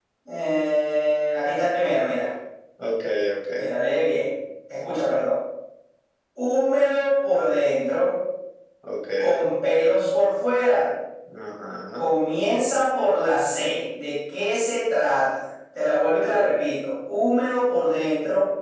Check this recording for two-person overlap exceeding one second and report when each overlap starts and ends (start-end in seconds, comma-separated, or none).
none